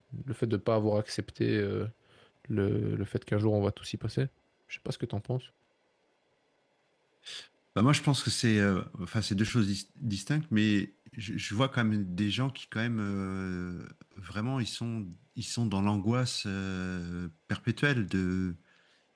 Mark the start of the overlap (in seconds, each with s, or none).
none